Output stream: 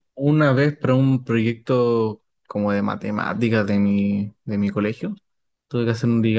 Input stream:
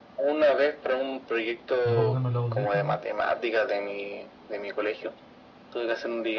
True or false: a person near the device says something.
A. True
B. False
A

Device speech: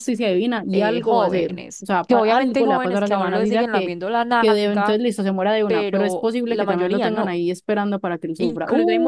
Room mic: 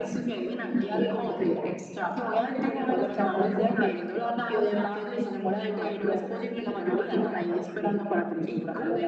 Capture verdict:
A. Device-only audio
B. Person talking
A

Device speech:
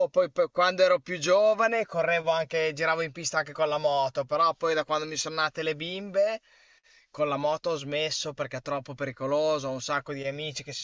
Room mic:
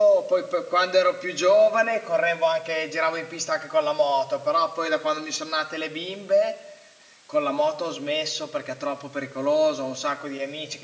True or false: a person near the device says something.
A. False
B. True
A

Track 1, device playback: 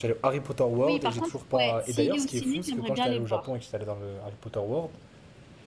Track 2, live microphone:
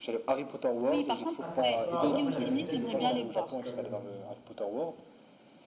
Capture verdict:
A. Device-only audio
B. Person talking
B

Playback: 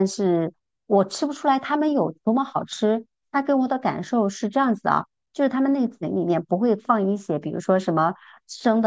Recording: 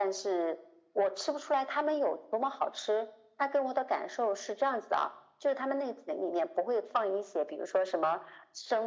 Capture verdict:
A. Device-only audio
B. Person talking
A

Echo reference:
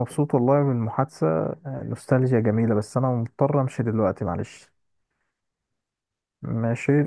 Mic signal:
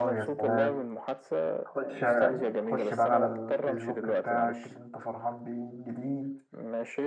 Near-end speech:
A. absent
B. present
B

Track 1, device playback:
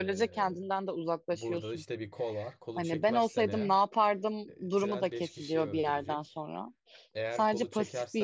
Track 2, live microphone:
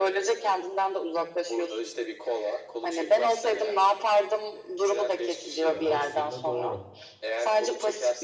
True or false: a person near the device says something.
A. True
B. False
A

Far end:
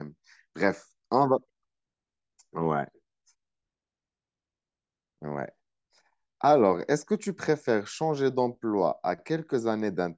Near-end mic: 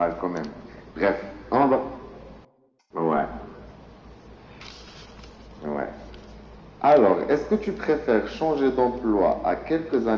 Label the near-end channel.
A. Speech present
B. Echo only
B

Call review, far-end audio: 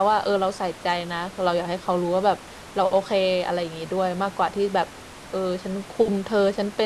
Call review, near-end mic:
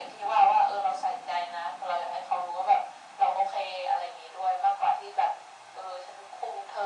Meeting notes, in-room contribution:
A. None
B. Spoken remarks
A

